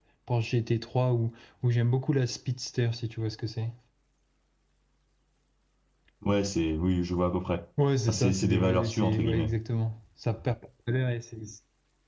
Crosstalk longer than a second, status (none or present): present